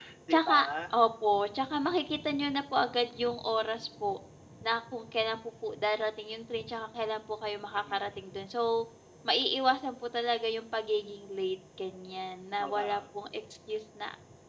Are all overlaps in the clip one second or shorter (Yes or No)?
Yes